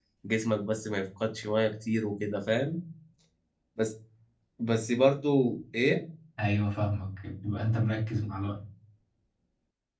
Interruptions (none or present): none